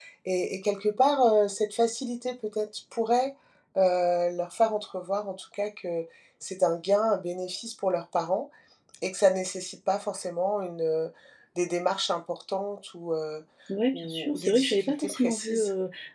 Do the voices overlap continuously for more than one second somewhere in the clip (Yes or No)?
Yes